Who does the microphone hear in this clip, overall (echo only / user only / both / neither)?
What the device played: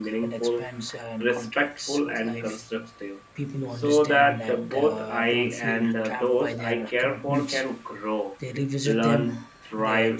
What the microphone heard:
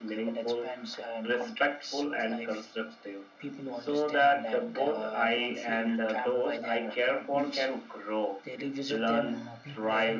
both